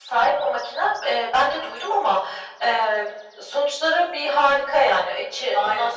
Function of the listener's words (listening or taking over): listening